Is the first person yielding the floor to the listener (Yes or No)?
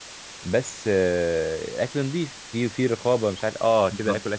No